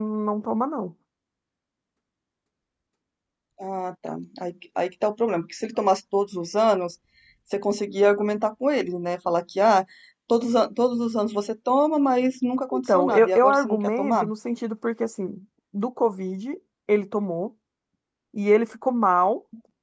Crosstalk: present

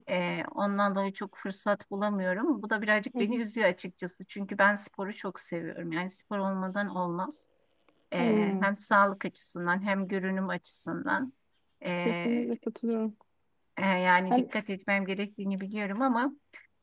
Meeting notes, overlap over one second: none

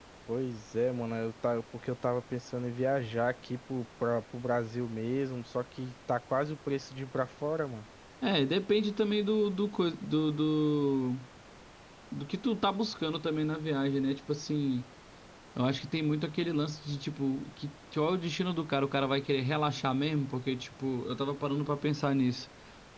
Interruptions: none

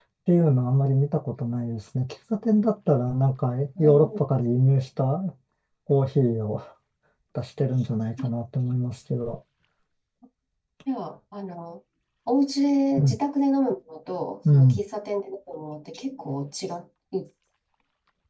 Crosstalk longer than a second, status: none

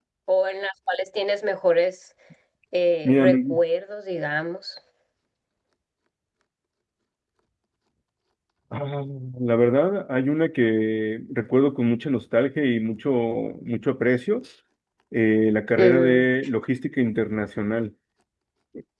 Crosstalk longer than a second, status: none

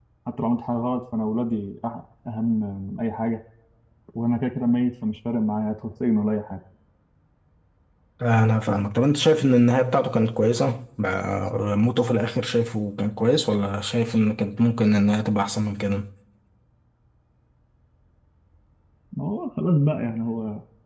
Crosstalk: none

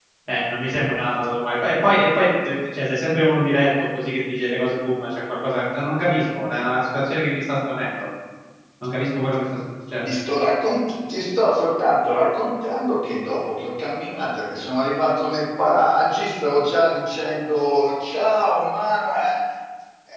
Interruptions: none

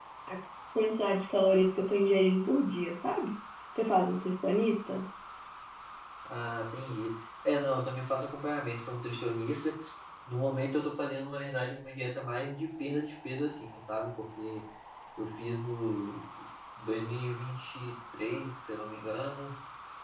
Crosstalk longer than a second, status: none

